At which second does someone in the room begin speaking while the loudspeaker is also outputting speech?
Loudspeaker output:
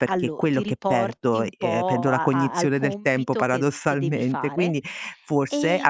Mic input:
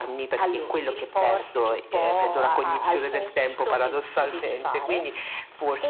none

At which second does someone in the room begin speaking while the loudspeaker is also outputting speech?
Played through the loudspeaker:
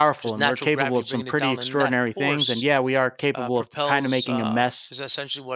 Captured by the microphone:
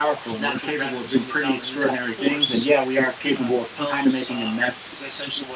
none

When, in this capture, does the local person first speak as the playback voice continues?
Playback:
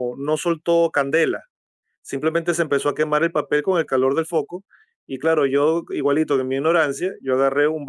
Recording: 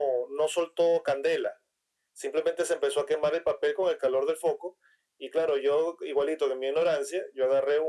none

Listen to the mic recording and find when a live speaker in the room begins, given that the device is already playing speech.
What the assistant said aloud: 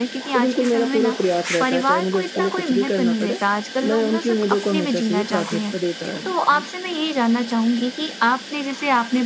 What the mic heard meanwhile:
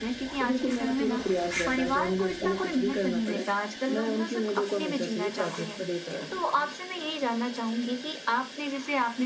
none

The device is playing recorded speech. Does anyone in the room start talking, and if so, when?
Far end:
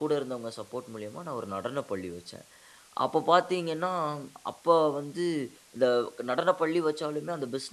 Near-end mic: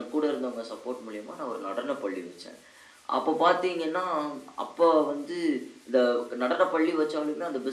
none

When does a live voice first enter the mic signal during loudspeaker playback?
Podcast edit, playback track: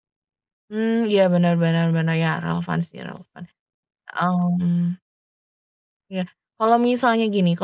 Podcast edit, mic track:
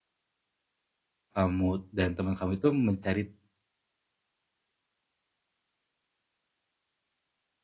1.3 s

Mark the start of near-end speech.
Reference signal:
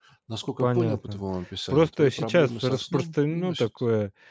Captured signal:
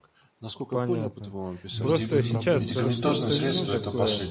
1.6 s

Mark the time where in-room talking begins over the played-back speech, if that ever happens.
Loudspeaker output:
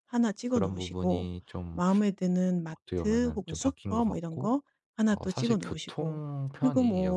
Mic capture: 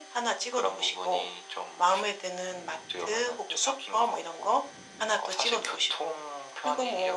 none

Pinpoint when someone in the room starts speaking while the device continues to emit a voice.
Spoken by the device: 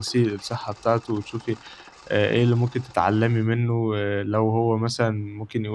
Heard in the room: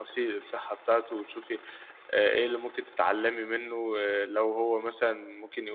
none

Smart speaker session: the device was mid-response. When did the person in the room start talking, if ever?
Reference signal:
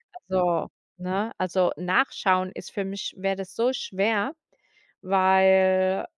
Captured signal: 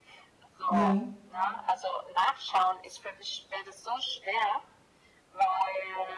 0.8 s

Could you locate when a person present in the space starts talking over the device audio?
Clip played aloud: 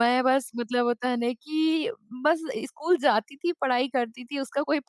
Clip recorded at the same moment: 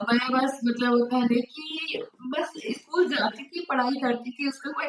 none

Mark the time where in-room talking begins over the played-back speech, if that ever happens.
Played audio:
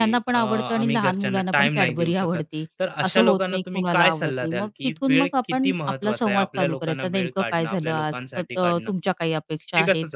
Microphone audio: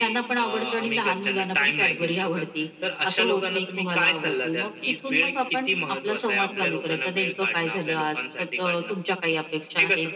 none

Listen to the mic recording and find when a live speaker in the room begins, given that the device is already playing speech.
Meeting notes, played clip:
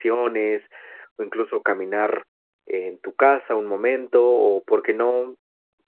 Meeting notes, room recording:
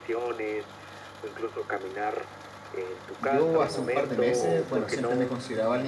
3.2 s

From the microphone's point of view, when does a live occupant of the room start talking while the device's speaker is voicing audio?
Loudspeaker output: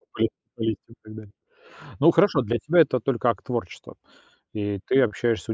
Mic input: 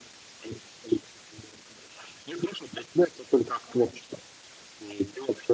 none

